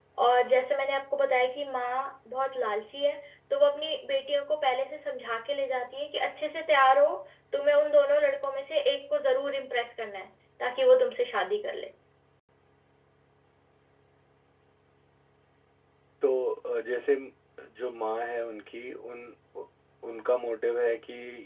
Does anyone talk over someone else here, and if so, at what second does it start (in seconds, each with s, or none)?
none